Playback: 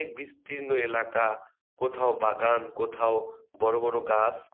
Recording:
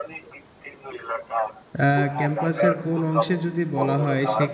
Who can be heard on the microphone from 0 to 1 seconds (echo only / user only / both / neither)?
echo only